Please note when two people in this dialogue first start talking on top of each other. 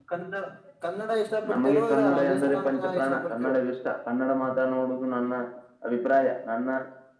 1.5 s

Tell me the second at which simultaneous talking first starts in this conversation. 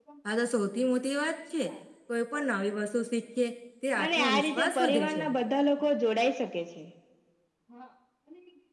4.0 s

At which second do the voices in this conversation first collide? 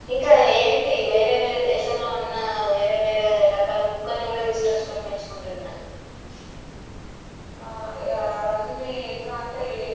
none

